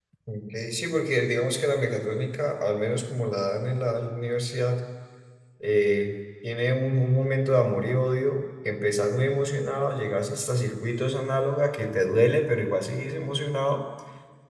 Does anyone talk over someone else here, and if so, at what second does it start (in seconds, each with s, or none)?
none